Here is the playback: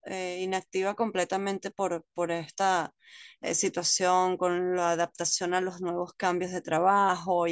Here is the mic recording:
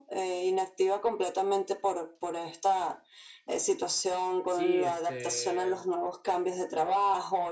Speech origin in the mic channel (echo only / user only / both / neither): both